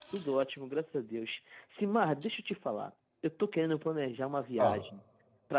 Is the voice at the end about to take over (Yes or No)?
No